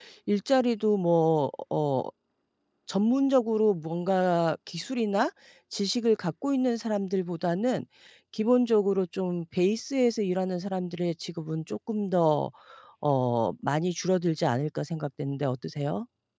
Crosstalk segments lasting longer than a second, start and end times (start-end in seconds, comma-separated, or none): none